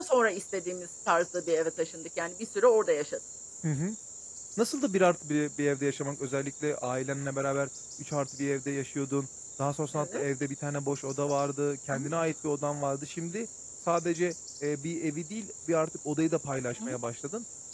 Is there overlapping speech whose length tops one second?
No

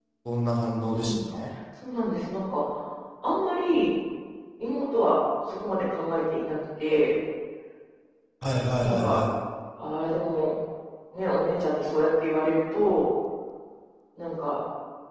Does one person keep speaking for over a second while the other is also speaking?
No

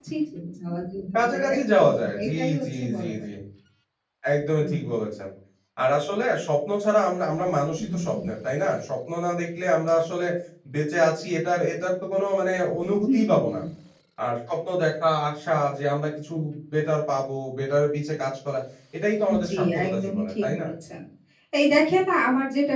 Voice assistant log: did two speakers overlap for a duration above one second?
Yes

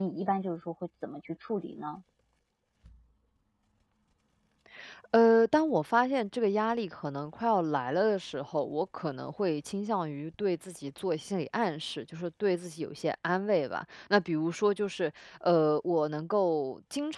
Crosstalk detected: No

